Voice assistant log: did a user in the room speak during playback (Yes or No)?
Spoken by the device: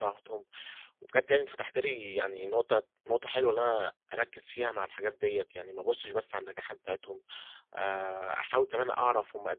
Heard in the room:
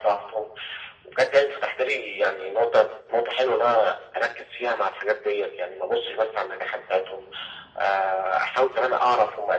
No